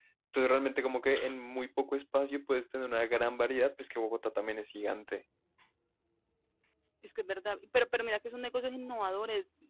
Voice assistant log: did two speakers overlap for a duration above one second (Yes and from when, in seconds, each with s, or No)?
No